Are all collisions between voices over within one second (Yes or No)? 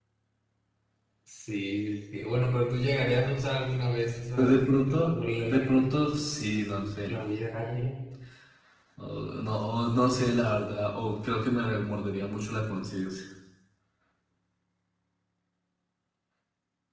No